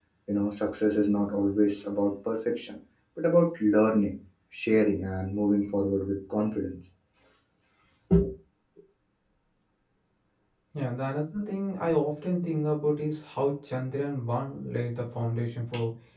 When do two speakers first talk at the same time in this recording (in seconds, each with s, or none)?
none